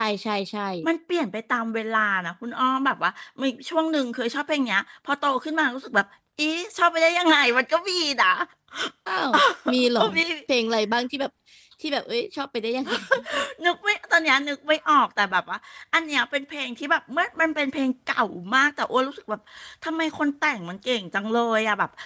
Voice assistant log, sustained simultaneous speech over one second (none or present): none